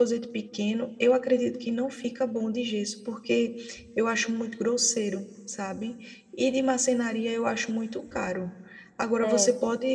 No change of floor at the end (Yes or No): Yes